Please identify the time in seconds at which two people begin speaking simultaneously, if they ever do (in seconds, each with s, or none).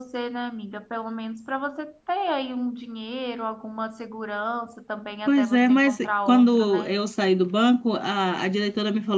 5.3 s